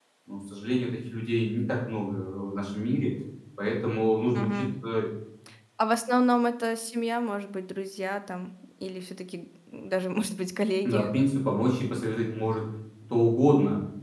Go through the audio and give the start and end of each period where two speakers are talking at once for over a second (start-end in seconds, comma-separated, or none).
none